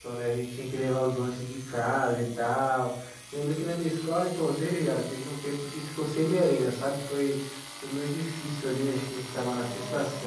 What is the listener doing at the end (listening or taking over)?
listening